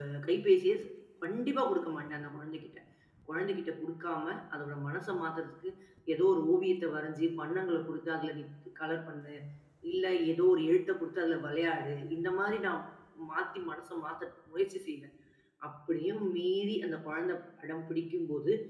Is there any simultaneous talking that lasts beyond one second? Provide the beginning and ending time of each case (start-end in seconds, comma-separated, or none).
none